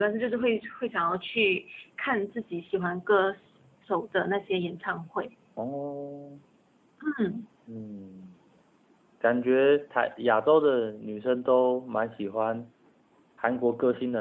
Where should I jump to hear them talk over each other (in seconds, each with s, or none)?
none